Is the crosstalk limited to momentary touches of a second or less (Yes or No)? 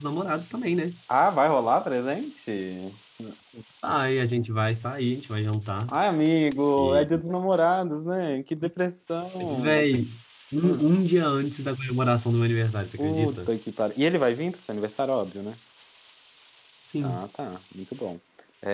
Yes